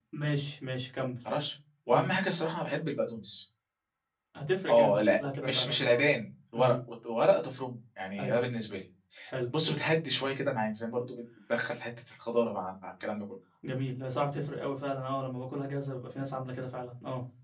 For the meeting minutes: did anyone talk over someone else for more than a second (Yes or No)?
Yes